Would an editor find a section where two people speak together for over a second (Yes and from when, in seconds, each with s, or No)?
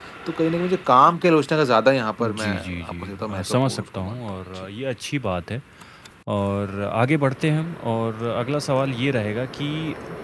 Yes, from 2.2 s